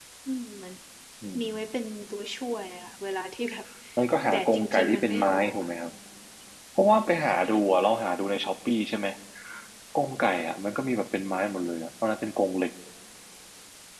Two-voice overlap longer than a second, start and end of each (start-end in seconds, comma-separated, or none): 4.3-5.5